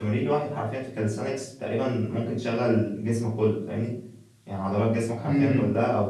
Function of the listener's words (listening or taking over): listening